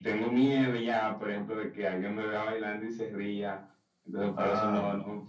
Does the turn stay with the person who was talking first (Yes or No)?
Yes